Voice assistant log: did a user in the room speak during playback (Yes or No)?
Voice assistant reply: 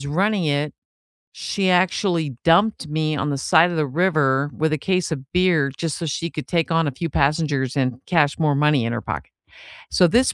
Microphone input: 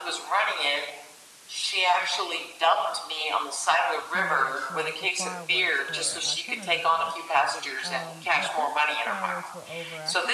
Yes